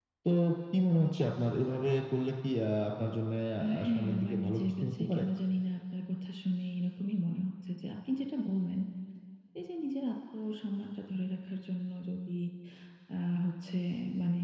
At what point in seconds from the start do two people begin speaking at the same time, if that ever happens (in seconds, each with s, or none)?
3.8 s